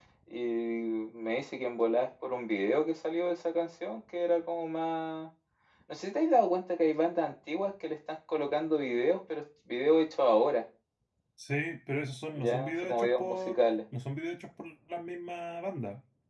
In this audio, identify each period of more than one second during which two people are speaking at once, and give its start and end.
12.3-13.7

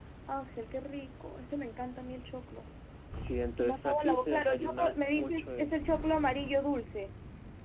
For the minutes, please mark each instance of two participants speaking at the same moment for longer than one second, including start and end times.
3.6-5.8

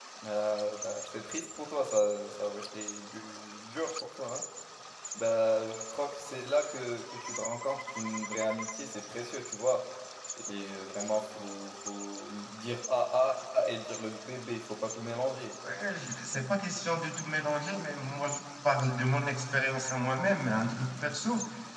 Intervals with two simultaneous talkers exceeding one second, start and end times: none

